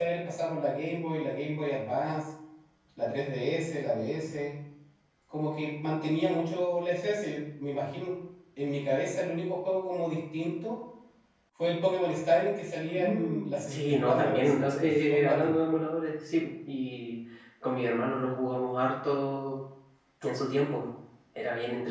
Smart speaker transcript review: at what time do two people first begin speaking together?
12.9 s

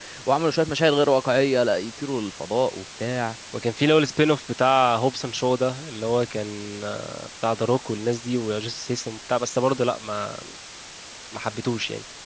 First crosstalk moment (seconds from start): none

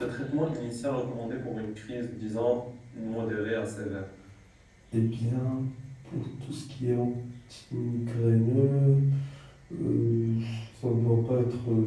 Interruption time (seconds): none

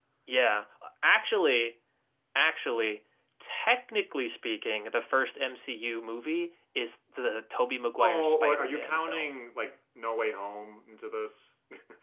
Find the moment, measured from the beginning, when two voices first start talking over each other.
8.0 s

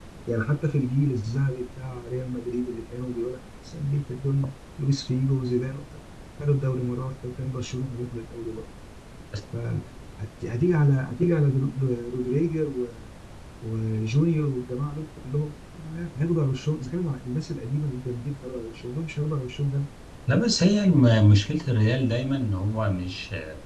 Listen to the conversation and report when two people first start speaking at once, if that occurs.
none

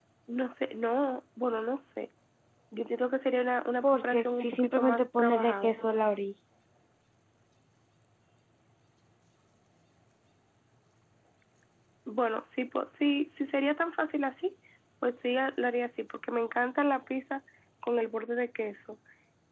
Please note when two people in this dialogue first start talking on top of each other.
3.8 s

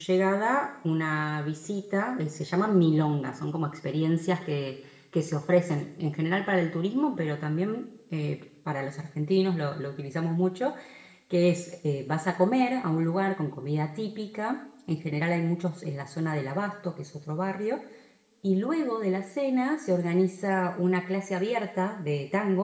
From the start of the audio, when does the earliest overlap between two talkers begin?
none

